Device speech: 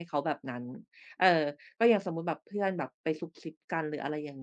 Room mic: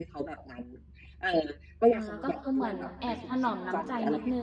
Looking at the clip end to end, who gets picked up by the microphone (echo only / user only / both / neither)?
both